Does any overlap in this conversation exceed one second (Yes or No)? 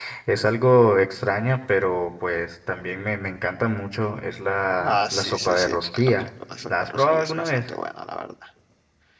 Yes